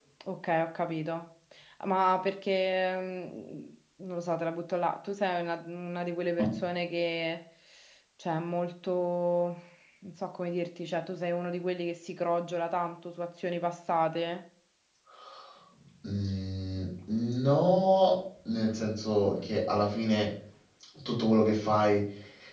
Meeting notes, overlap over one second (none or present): none